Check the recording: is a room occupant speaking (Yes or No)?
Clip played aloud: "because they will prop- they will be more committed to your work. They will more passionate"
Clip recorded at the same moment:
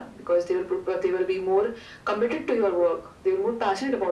No